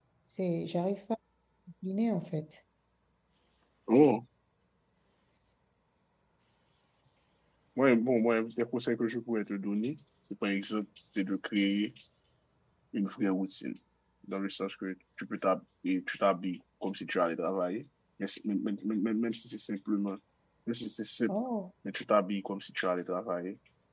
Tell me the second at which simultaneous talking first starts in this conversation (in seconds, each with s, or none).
none